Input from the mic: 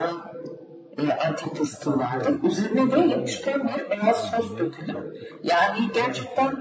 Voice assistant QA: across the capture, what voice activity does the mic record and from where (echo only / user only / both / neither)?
both